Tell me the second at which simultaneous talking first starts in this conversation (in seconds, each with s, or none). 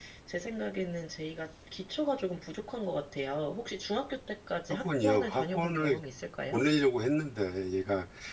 4.7 s